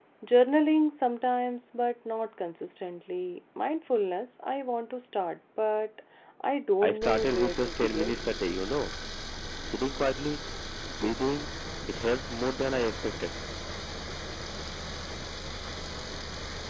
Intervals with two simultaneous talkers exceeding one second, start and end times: 6.8-8.4

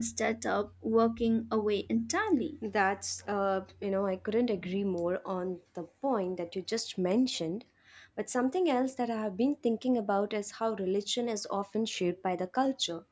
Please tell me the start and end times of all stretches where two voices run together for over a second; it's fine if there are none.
none

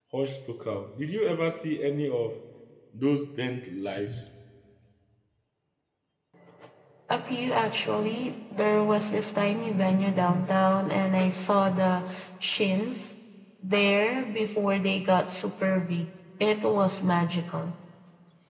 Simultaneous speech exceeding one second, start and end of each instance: none

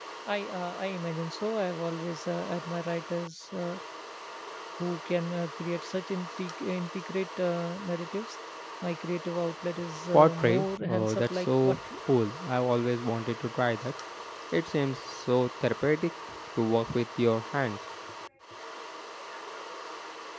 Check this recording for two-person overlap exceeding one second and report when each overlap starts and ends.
10.1-11.8

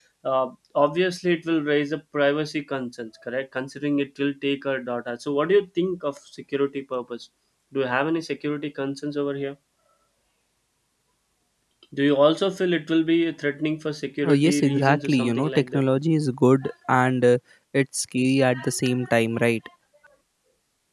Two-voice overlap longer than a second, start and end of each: 14.2-15.8

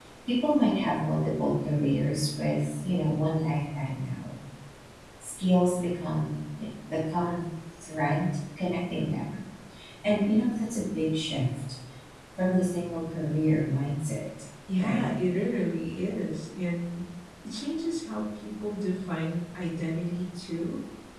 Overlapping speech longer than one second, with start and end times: none

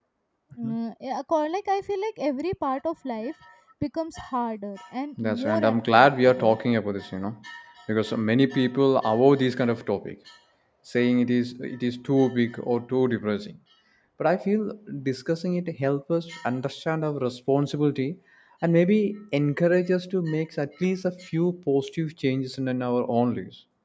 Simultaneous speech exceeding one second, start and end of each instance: 5.2-6.6

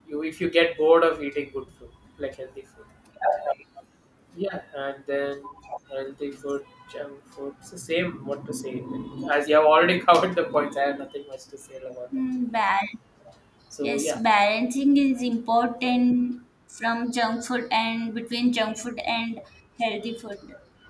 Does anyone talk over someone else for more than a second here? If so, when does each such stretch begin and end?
none

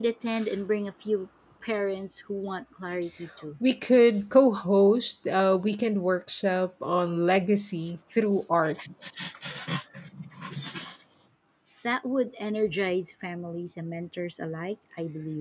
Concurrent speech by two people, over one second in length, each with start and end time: none

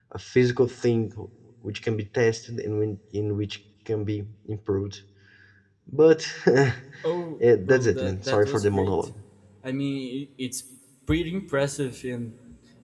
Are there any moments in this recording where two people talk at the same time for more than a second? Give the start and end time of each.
7.6-8.9

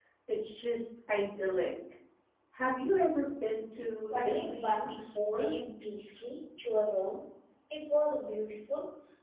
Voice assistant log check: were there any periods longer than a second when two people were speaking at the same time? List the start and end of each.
4.1-5.5

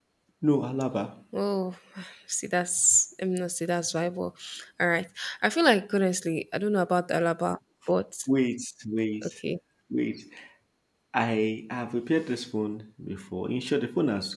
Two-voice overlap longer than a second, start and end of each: none

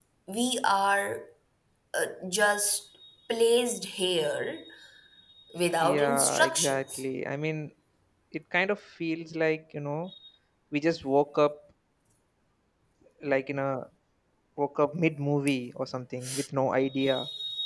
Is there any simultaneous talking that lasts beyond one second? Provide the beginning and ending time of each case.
5.8-7.0

